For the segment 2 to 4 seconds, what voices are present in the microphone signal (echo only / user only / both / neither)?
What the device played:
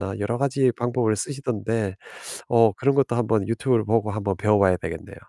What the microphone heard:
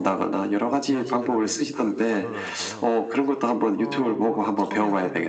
both